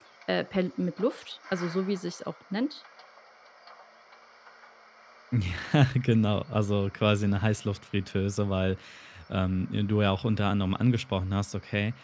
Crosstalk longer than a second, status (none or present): none